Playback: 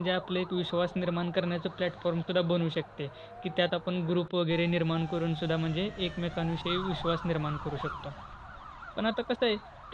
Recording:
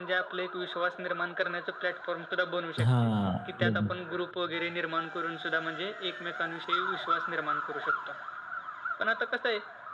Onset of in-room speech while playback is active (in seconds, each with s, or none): 2.8 s